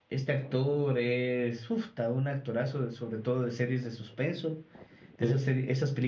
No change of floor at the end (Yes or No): Yes